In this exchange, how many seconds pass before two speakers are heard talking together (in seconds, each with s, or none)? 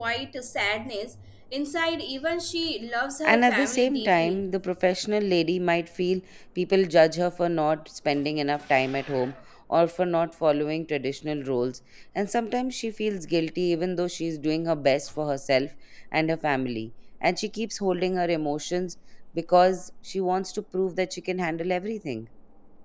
3.2 s